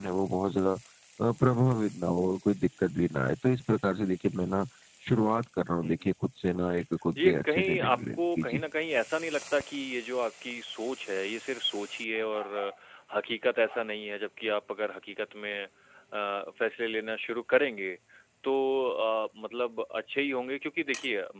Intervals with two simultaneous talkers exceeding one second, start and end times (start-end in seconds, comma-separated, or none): 7.2-8.6